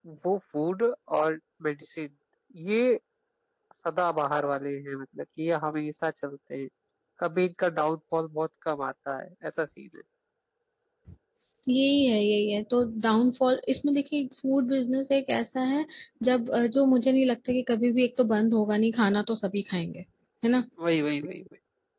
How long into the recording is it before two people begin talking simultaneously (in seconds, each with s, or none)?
none